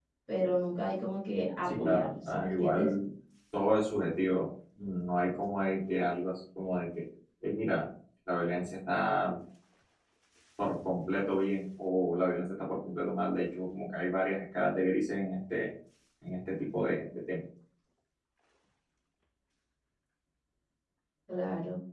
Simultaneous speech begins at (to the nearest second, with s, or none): 2 s